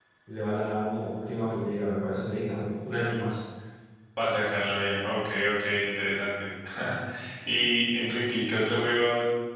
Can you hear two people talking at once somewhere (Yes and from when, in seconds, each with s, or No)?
No